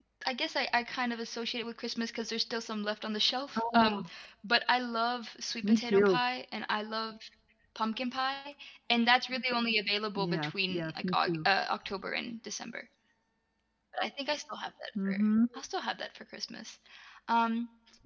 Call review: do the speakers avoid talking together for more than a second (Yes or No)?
No